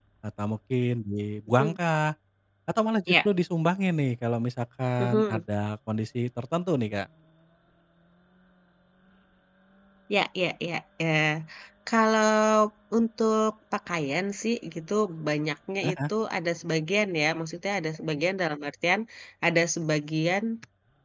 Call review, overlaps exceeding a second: none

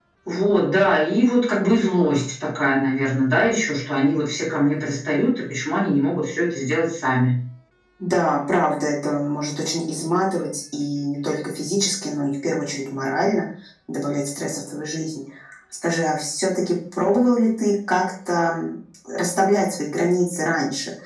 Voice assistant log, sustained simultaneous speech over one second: none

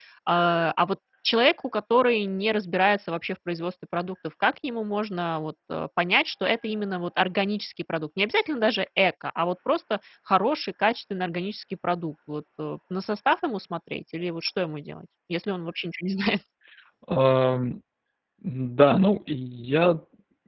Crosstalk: none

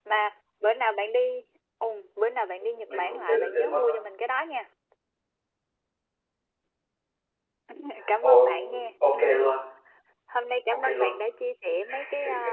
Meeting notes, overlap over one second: present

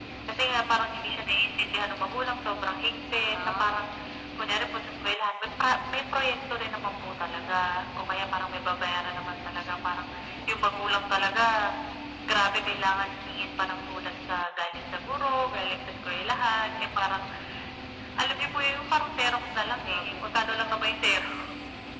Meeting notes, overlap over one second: none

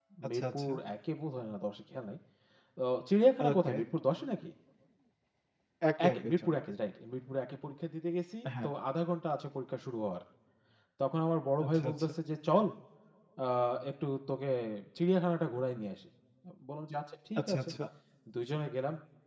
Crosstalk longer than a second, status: none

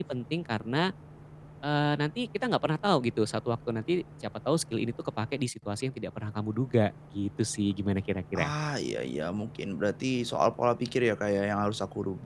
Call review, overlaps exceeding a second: none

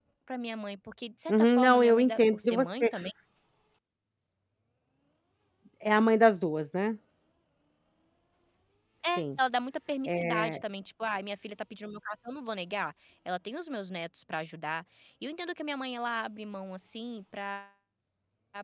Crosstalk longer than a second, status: present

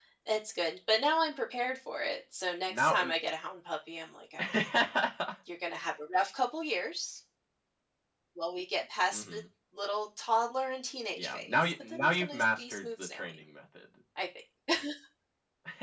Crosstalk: present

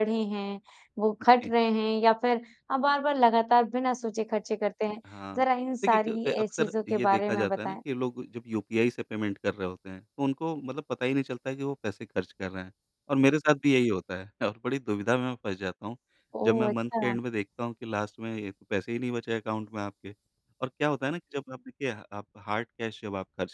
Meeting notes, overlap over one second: present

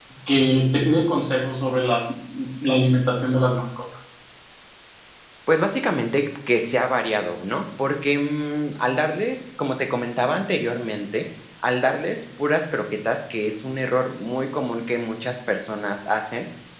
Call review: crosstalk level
none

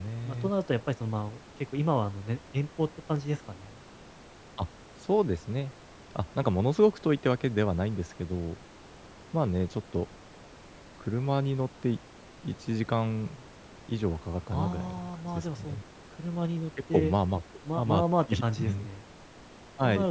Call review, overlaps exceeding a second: present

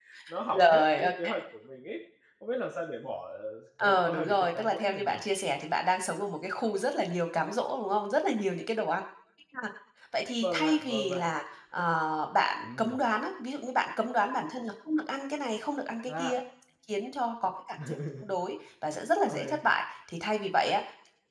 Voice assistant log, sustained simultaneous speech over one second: present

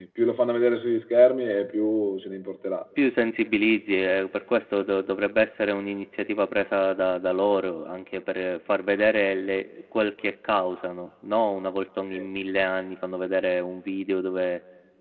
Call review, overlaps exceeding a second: none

